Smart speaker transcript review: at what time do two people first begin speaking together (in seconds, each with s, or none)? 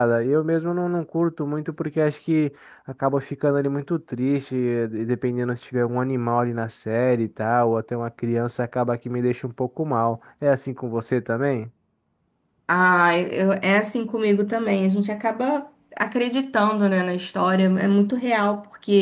none